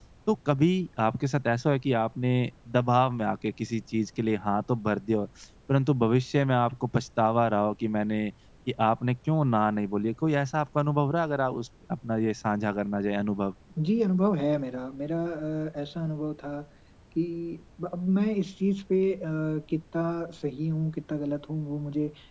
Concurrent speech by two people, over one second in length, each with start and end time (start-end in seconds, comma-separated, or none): none